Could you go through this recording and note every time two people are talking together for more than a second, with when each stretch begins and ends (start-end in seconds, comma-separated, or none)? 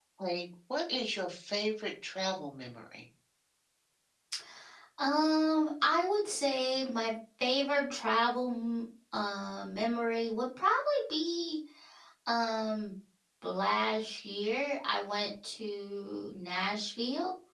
none